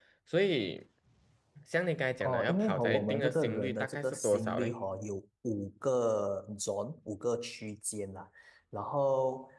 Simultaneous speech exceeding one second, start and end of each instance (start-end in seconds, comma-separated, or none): 2.2-4.7